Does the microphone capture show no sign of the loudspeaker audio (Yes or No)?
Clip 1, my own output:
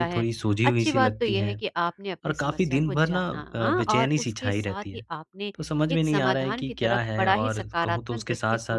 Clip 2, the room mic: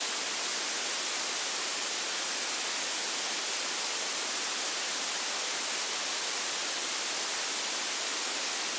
Yes